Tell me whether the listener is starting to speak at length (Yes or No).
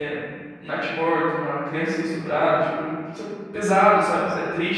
No